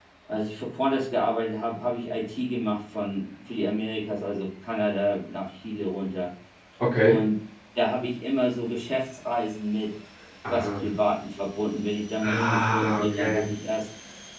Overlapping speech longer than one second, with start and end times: 12.2-13.4

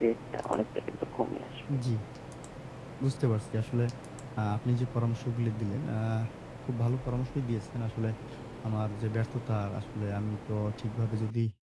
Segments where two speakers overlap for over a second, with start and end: none

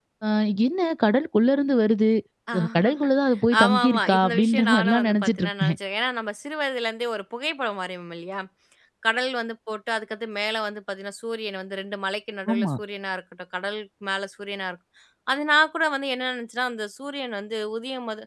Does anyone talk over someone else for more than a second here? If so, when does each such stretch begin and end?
3.6-5.8

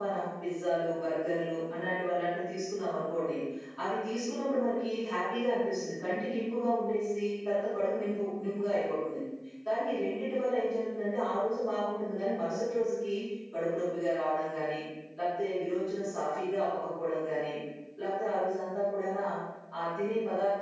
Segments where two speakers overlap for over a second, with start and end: none

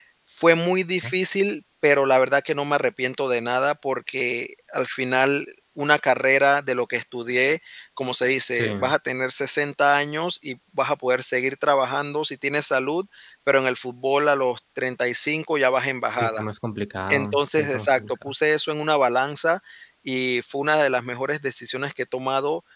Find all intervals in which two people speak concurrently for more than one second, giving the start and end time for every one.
17.1-18.3

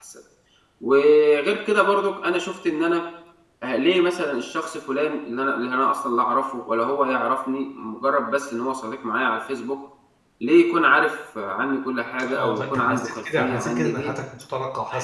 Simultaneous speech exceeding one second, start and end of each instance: 12.3-14.1

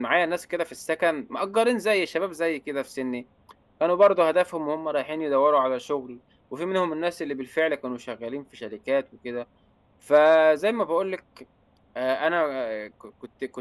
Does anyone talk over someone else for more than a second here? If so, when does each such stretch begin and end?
none

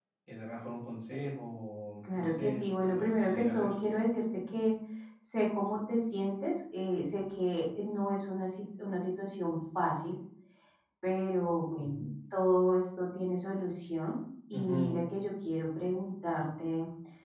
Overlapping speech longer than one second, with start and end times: 2.1-3.7

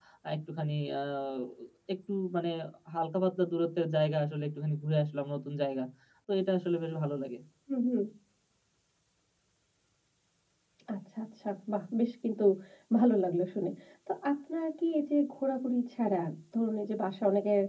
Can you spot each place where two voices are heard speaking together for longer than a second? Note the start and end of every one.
none

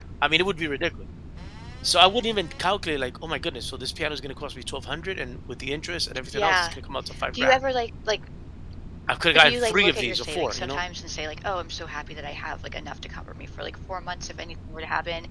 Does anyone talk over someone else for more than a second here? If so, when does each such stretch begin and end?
9.3-10.8

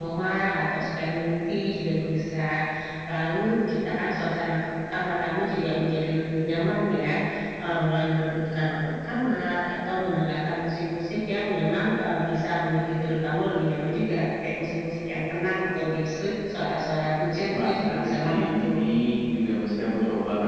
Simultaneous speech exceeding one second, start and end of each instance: 17.5-18.8

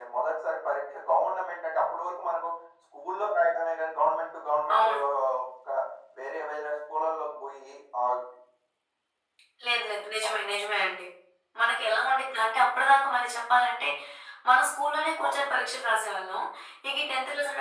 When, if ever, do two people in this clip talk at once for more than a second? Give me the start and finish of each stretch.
none

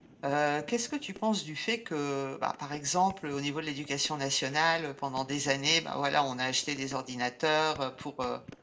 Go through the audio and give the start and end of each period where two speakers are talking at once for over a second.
none

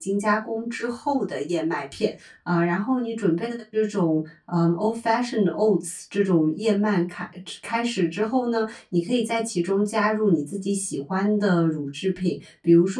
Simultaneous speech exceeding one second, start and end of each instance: none

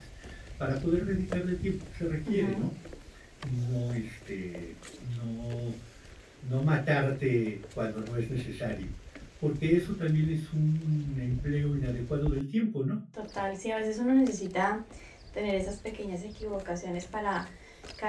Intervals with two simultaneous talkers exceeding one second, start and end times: none

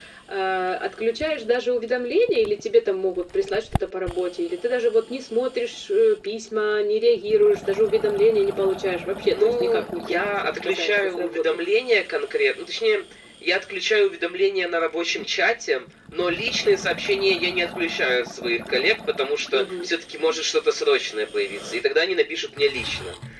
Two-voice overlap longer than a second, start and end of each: 9.2-11.6

